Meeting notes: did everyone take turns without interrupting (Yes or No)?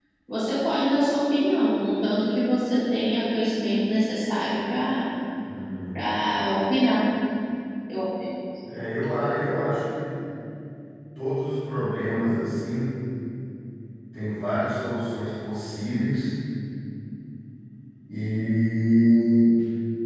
Yes